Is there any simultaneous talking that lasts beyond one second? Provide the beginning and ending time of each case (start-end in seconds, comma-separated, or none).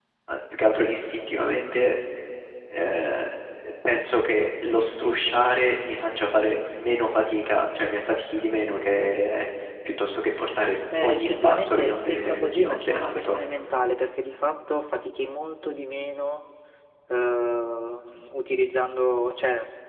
11.0-13.4